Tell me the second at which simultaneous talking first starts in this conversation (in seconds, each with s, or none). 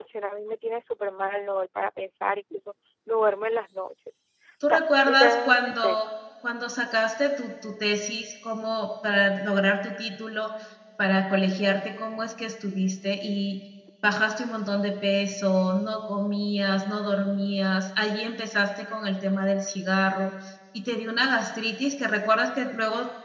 4.6 s